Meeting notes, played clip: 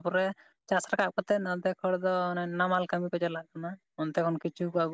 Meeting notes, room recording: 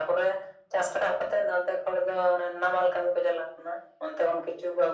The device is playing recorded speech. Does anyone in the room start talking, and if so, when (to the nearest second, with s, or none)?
none